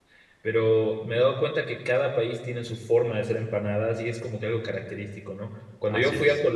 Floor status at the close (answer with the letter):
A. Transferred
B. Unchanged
B